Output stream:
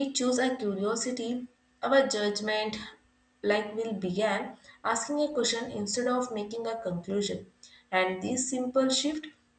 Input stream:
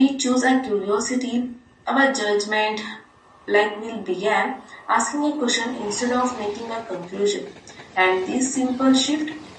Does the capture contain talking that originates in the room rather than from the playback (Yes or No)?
No